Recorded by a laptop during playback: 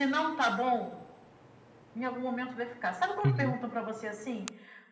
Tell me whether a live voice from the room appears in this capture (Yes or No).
Yes